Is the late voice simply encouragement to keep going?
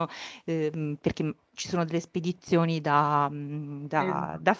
Yes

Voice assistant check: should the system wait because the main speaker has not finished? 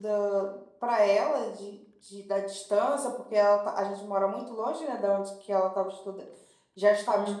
Yes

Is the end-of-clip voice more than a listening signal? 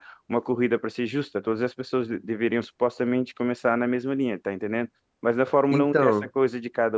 No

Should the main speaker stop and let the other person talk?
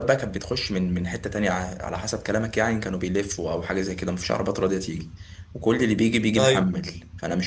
No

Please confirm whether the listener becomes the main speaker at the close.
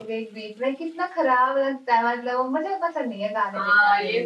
Yes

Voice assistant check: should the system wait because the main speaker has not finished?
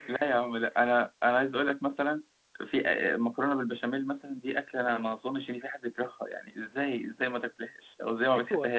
No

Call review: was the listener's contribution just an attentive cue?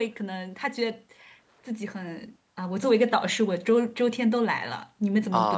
No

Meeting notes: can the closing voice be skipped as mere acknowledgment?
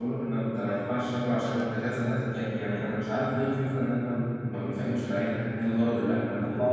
No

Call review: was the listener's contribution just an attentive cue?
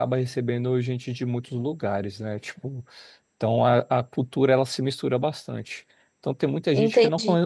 Yes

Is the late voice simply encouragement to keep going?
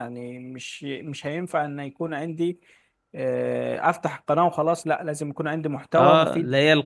No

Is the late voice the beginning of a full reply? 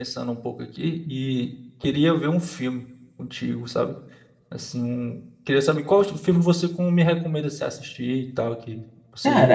Yes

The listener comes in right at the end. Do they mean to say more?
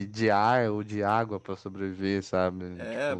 Yes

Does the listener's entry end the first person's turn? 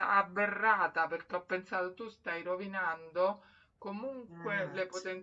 No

